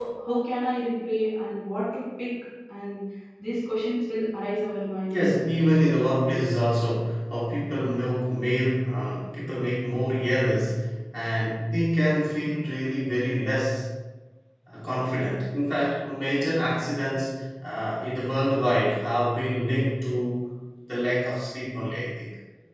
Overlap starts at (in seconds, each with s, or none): none